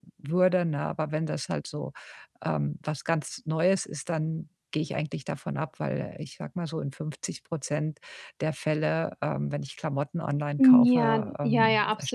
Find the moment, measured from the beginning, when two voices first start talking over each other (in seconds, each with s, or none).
10.6 s